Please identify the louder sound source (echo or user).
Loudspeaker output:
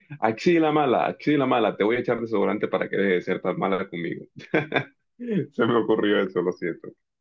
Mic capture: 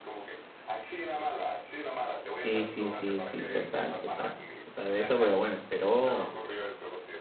user